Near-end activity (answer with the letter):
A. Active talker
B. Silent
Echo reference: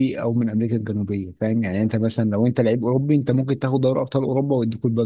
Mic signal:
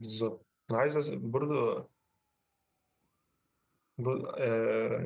A